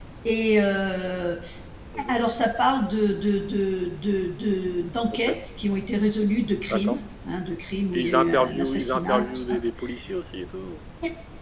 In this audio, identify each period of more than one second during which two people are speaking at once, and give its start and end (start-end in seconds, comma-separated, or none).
7.9-9.6